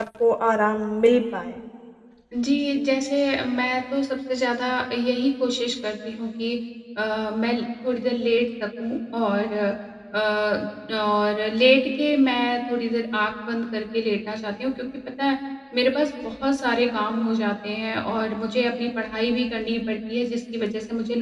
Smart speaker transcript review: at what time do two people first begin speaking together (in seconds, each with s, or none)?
none